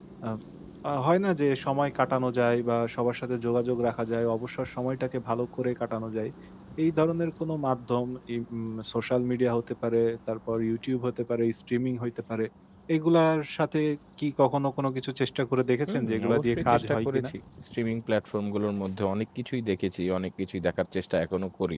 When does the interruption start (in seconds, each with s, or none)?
15.9 s